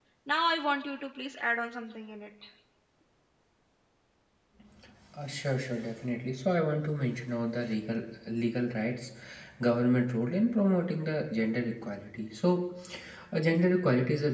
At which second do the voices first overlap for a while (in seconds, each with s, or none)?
none